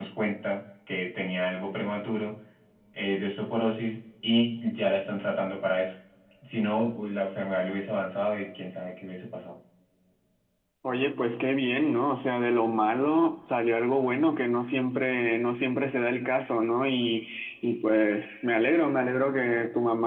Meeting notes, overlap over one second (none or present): none